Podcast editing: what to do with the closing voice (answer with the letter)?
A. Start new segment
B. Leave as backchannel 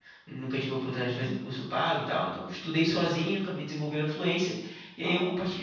B